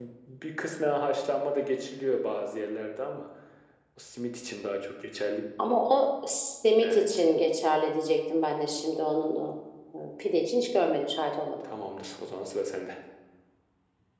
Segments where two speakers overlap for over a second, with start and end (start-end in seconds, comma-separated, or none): none